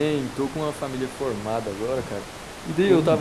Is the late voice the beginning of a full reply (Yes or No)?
No